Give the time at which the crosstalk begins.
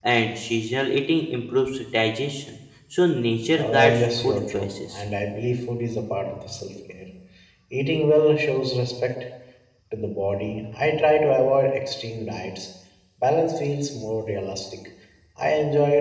3.6 s

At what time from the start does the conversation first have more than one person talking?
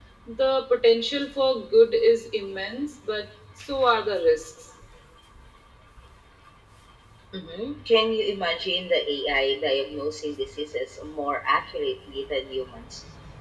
none

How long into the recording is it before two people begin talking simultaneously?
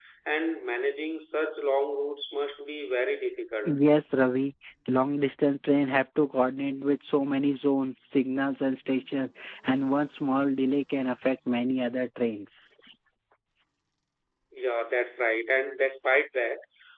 none

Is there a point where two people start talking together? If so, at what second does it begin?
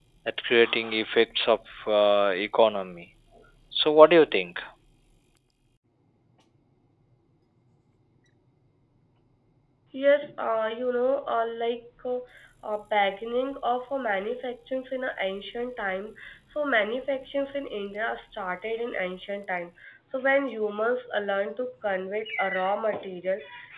none

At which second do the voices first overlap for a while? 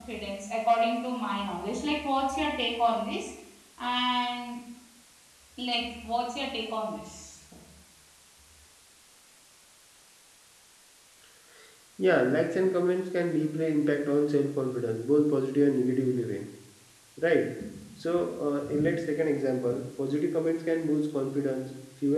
none

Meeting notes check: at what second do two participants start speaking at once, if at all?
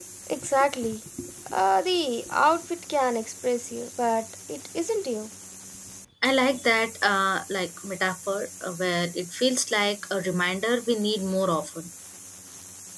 none

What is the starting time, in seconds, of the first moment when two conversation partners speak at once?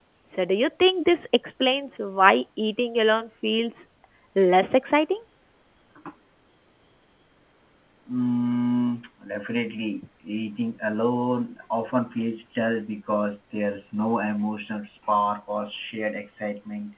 none

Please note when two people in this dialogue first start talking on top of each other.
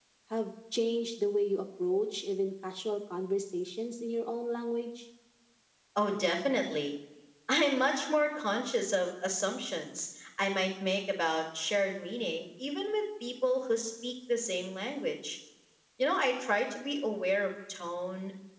none

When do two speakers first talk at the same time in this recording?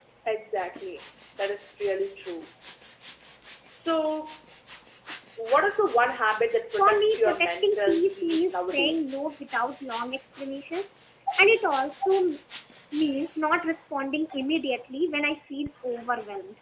6.8 s

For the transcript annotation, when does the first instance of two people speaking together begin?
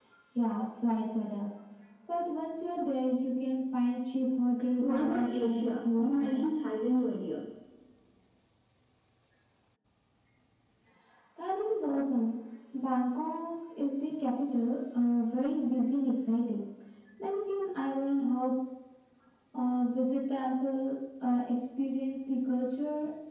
4.8 s

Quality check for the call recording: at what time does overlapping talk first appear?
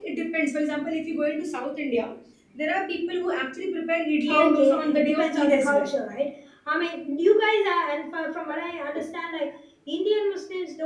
4.3 s

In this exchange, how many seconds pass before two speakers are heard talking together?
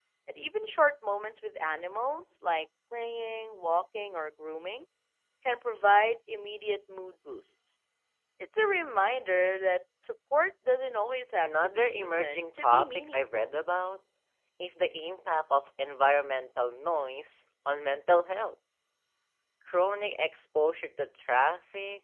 11.4 s

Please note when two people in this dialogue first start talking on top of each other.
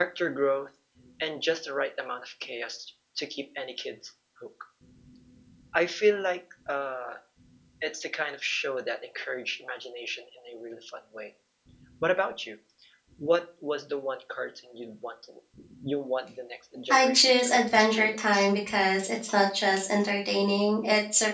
16.9 s

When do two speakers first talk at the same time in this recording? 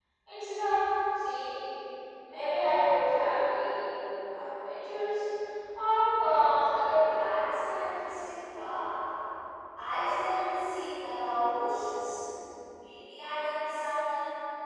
6.6 s

